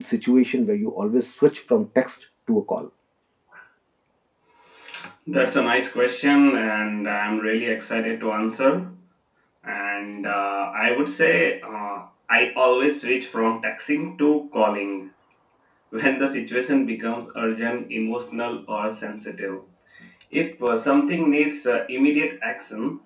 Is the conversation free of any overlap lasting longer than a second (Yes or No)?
Yes